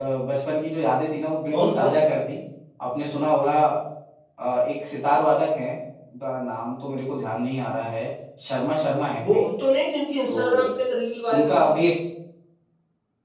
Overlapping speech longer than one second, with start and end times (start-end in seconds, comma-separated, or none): none